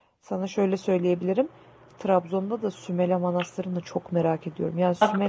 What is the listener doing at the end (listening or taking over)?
taking over